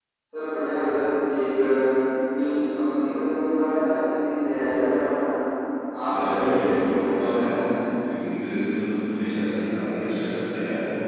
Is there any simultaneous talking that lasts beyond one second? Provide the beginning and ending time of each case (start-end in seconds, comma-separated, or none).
6.0-7.5